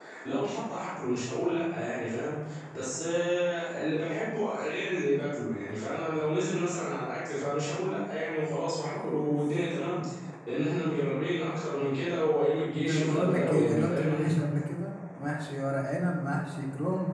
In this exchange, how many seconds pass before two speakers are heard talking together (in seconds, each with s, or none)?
12.9 s